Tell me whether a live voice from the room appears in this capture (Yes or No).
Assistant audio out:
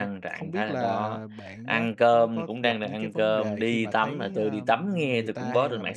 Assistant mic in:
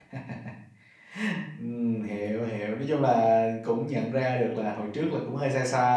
Yes